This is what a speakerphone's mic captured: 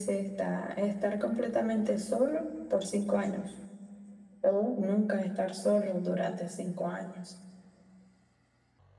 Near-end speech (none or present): none